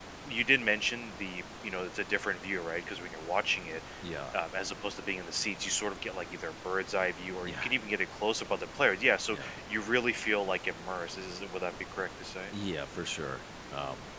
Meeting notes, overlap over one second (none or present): none